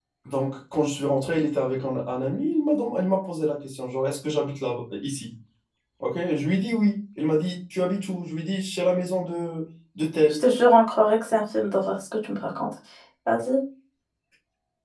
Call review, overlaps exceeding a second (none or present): none